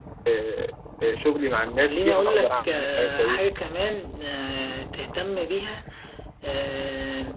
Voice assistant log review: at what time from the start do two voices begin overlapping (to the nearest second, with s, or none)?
2 s